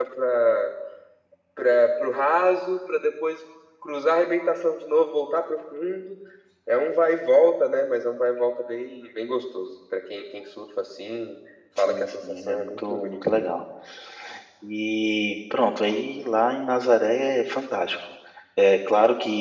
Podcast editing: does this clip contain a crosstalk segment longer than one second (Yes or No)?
Yes